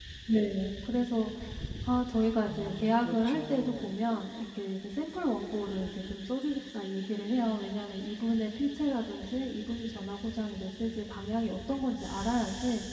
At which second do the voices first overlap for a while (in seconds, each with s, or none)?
2.4 s